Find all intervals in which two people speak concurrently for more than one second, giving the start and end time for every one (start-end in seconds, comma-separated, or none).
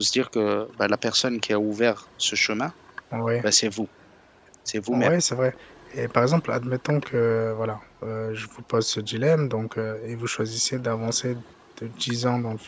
none